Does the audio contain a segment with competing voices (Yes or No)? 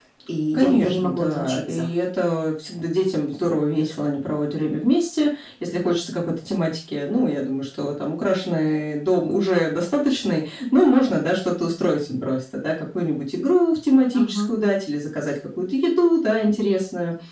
Yes